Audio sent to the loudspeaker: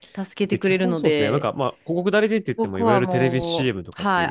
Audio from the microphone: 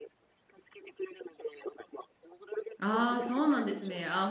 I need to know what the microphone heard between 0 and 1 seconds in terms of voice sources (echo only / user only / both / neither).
echo only